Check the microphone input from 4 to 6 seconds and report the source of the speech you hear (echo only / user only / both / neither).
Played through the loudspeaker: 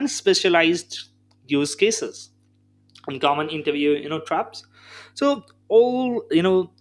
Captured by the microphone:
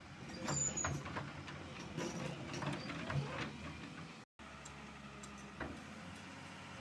neither